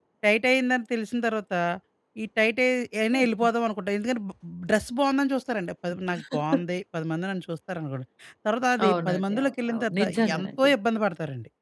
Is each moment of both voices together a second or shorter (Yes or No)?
No